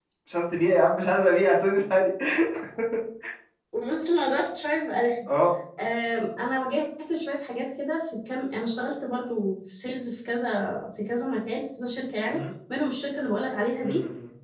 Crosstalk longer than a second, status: none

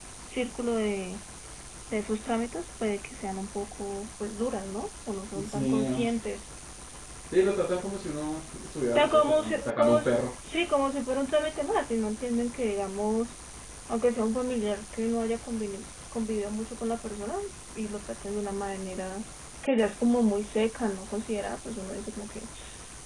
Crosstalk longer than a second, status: present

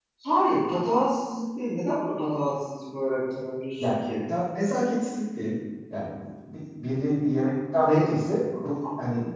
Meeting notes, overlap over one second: none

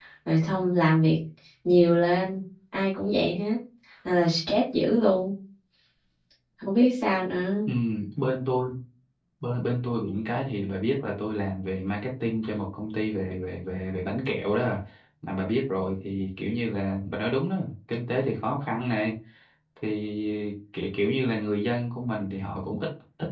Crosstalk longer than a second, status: none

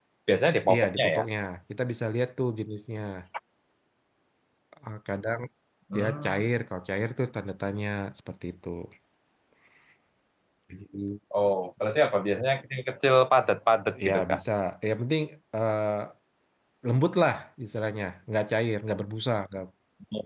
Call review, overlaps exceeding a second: none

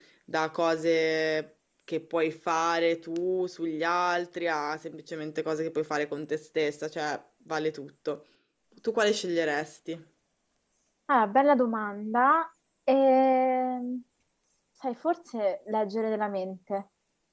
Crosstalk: none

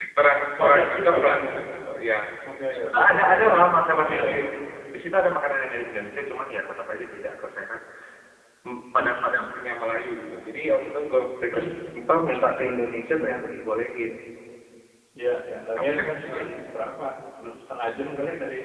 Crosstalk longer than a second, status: present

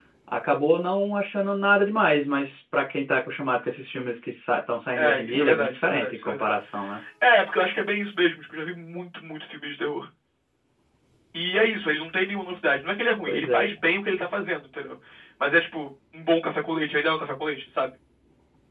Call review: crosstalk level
present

